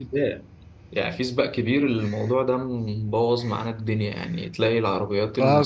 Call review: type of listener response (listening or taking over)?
taking over